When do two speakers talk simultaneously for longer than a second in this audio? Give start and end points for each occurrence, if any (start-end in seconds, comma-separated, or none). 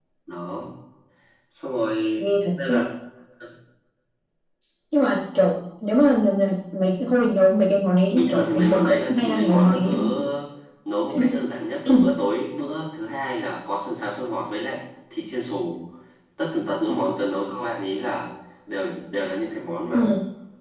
8.1-9.9